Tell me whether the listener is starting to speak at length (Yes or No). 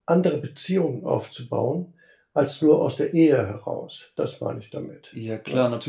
Yes